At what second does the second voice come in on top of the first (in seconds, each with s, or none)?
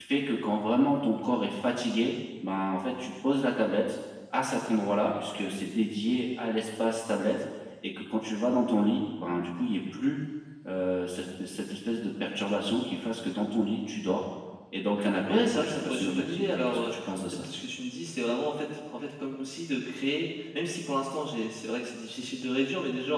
15.3 s